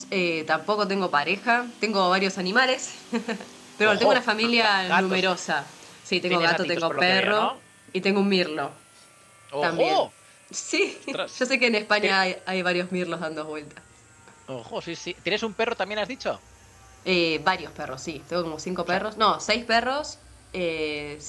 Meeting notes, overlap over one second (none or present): present